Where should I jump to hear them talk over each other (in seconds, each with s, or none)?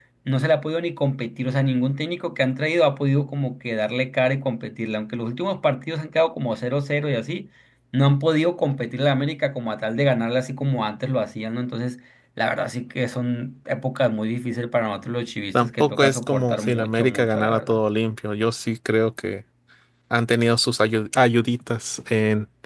15.5 s